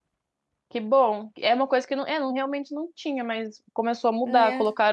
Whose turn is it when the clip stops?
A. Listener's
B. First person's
B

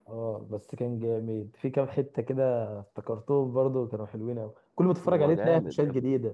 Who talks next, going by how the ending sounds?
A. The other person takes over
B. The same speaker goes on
A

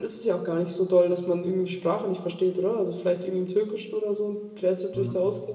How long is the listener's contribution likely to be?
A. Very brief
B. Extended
B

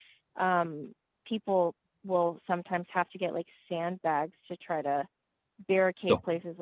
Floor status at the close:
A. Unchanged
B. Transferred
A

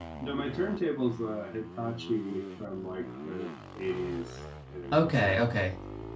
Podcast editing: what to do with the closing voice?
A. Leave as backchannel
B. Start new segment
B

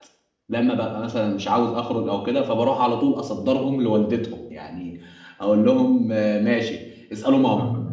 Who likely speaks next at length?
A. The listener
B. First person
B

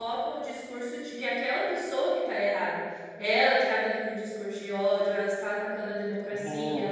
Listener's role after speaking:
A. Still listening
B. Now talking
A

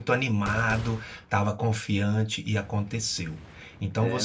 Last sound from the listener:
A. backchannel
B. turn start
A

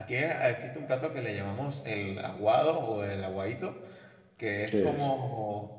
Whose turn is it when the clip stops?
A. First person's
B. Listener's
A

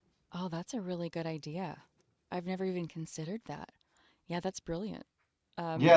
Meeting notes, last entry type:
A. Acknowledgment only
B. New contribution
B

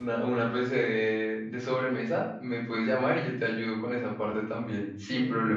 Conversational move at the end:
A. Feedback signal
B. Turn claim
B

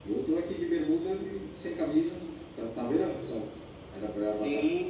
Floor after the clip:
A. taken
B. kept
A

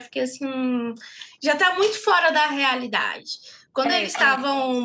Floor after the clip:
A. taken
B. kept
B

